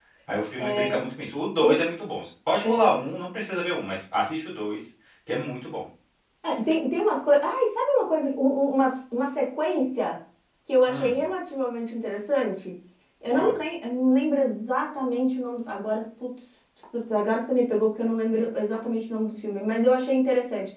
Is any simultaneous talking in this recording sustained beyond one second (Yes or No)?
No